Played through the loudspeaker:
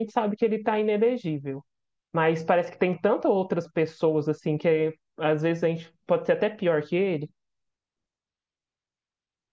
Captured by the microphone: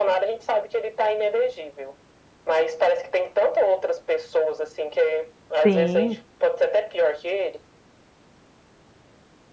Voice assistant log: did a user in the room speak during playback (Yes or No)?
Yes